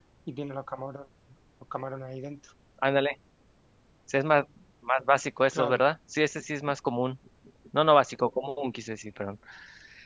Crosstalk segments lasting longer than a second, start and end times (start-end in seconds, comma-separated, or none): none